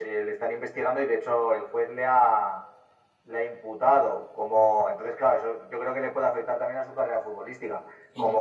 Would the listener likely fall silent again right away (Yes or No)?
Yes